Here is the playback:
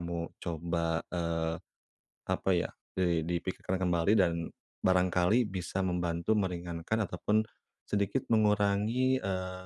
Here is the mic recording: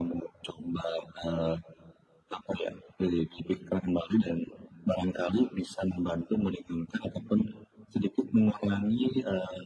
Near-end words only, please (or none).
none